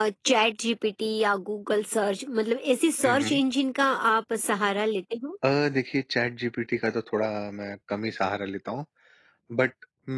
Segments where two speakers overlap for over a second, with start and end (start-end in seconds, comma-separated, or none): none